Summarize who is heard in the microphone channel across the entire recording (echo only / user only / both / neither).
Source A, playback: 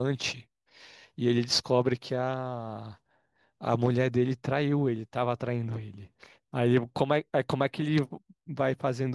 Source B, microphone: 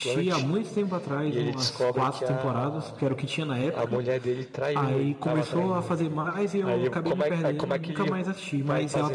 both